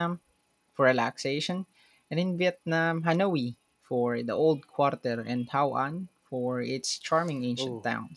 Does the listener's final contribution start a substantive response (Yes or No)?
Yes